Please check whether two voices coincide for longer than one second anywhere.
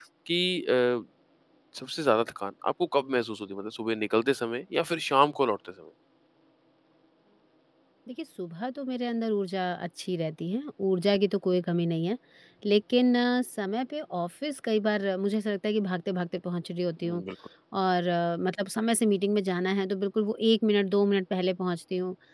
No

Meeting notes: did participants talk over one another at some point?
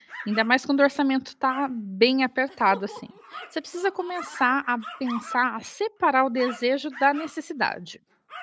No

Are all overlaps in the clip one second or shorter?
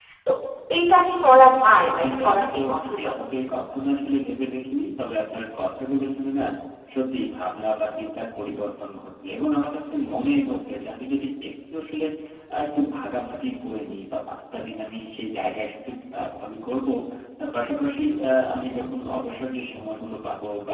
No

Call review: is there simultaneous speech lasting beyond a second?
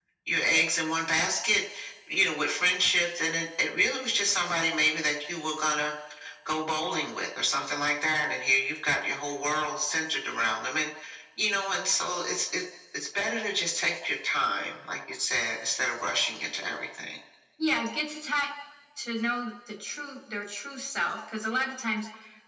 No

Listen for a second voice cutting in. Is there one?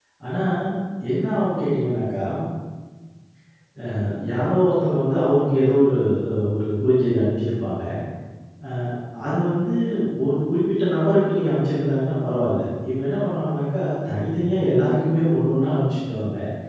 No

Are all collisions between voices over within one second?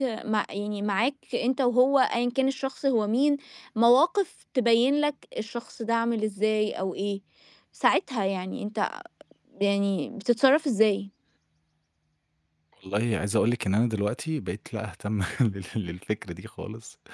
Yes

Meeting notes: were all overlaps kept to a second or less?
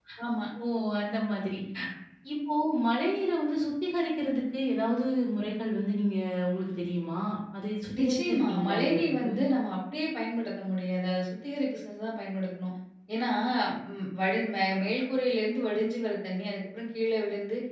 No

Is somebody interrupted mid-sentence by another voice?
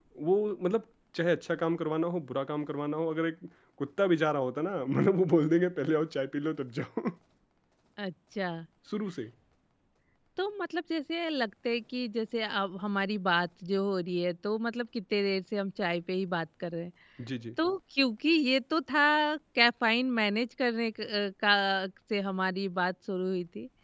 No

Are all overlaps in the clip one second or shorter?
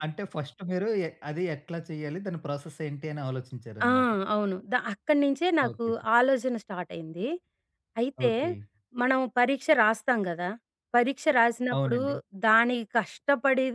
Yes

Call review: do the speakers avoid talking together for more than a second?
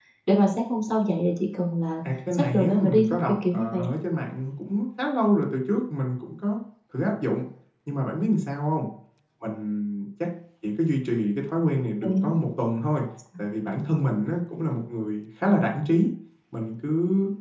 No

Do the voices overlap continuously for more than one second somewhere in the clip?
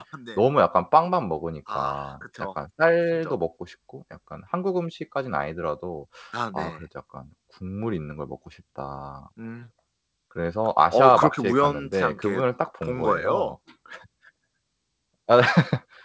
Yes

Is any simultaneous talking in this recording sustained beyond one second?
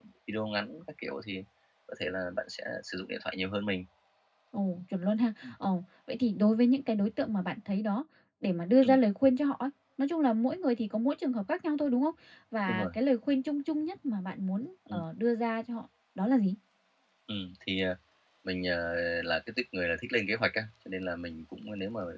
No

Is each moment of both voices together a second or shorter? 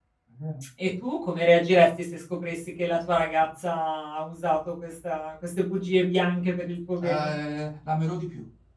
Yes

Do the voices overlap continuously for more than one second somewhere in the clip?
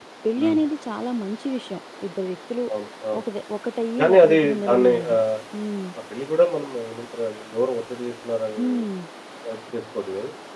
Yes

